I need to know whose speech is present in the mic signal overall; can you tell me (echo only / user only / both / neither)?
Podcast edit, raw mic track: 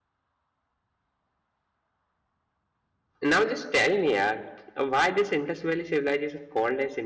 user only